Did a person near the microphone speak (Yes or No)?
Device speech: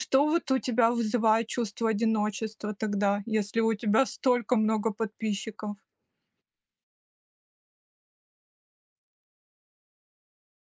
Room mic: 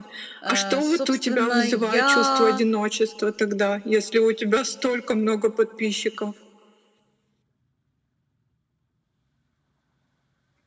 Yes